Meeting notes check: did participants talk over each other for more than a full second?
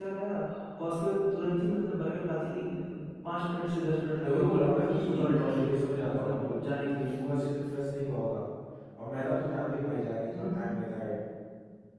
Yes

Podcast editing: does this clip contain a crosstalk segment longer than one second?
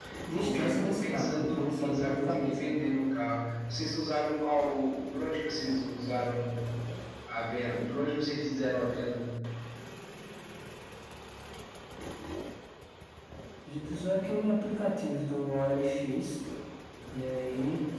Yes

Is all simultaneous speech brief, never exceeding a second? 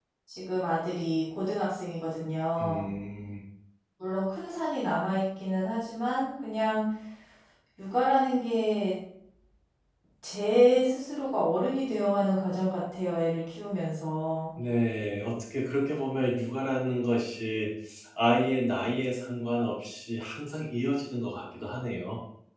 Yes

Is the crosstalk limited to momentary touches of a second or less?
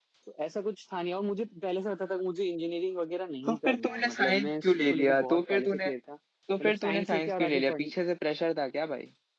No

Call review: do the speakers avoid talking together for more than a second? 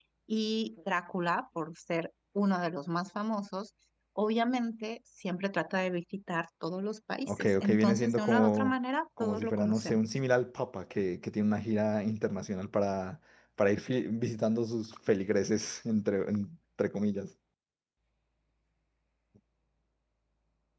No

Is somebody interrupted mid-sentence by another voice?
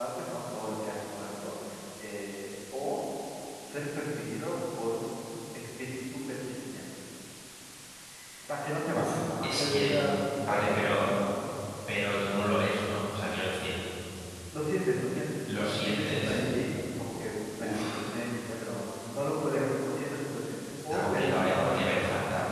Yes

